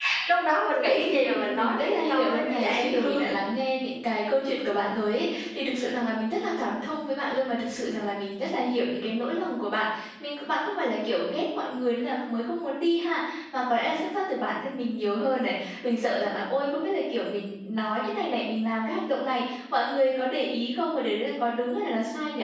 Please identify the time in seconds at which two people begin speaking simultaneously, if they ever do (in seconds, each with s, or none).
0.8 s